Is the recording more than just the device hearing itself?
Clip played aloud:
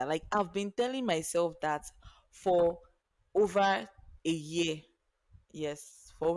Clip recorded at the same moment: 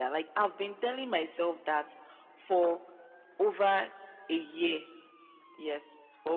No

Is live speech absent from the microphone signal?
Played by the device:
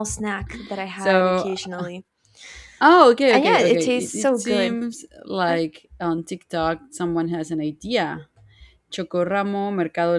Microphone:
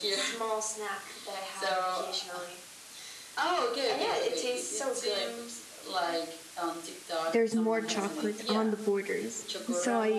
No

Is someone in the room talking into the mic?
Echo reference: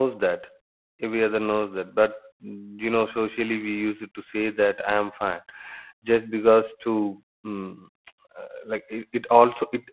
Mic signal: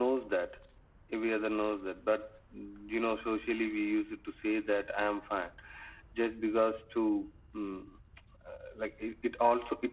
No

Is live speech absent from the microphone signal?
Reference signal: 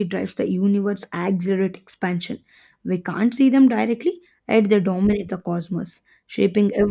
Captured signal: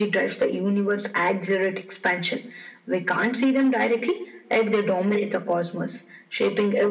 Yes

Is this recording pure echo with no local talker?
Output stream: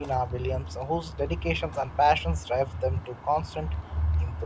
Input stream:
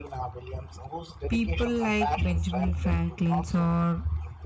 No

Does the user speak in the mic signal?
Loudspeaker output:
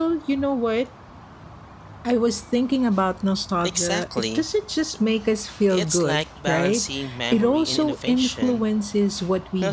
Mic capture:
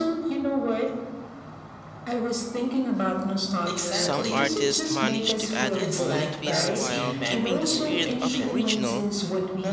Yes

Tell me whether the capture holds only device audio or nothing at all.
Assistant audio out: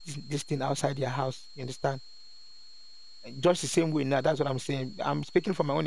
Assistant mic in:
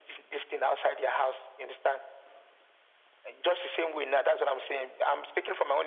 Yes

